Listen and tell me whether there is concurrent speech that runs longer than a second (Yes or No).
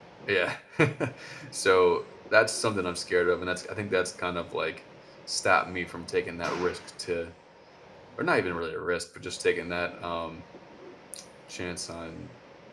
No